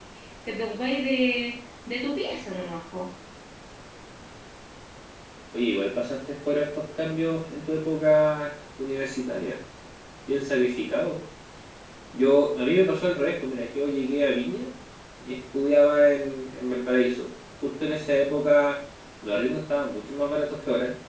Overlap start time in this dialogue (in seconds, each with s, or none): none